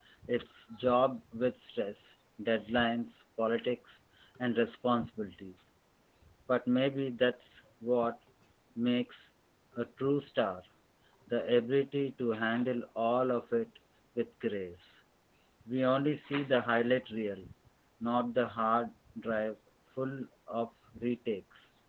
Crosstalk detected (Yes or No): No